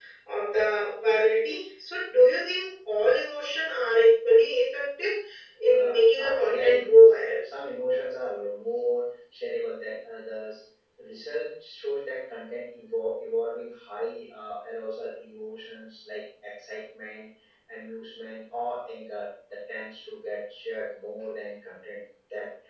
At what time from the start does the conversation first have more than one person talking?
5.7 s

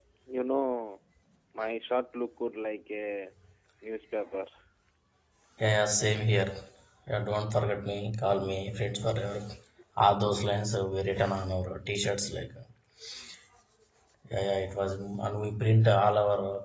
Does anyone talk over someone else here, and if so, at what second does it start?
none

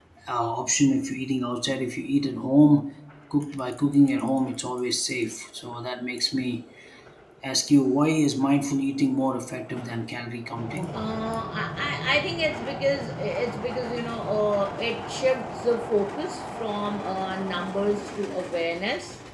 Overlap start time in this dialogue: none

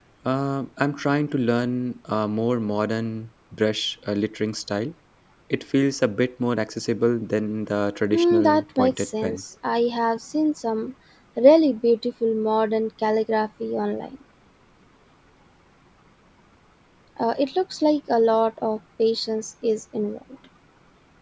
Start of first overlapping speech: 8.1 s

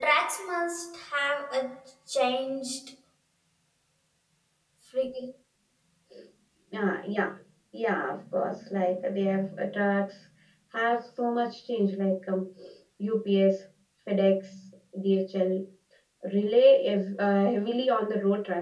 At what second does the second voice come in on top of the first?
none

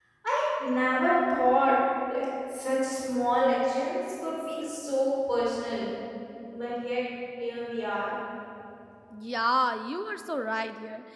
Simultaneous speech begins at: none

